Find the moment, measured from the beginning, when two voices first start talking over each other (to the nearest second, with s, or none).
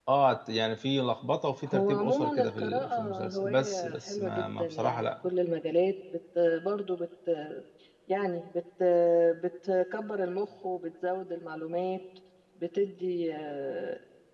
2 s